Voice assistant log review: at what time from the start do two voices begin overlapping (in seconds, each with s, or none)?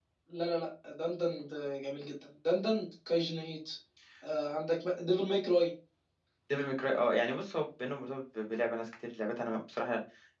none